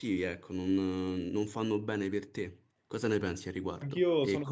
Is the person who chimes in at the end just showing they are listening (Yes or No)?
No